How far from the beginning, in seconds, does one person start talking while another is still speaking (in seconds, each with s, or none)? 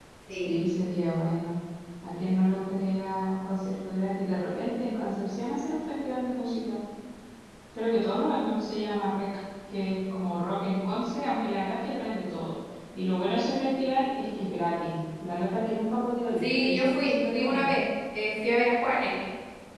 16.4 s